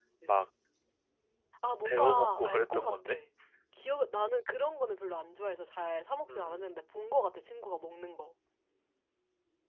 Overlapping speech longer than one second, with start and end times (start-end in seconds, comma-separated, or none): 1.9-3.2